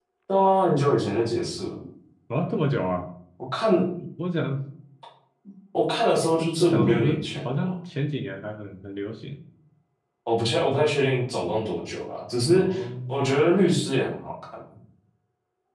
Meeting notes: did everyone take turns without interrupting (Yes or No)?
No